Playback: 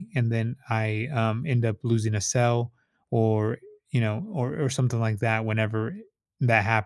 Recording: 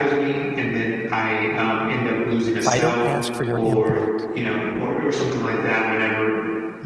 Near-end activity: present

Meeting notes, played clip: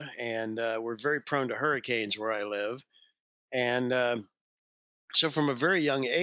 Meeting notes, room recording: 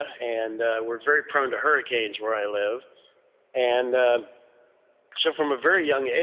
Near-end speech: none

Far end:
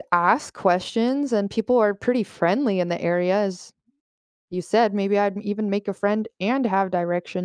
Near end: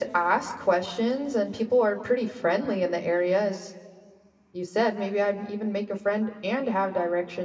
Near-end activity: none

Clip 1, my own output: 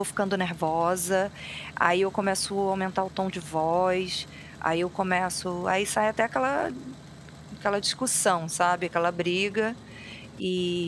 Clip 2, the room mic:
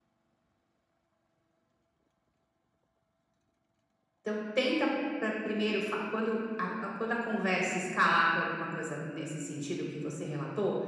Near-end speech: present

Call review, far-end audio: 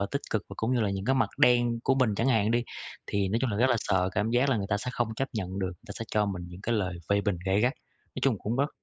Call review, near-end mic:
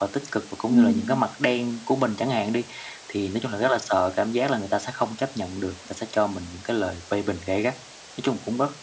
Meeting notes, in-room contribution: present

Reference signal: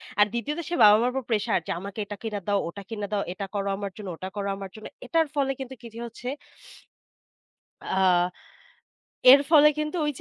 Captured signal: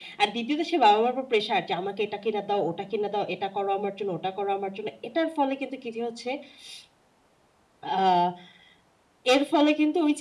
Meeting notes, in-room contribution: none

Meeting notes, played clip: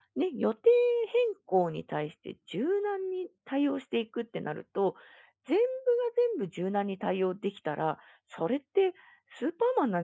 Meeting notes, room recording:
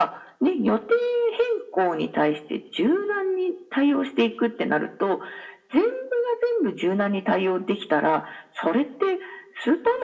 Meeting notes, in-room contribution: none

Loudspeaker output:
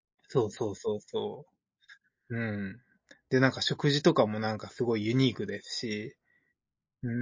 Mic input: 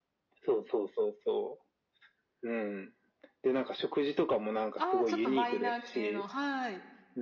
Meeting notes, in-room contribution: present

